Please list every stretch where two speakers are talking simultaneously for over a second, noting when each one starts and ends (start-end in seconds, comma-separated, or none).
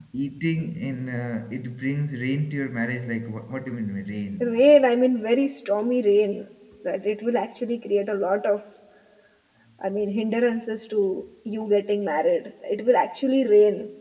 none